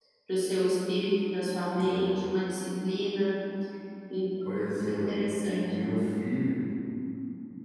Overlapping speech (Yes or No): Yes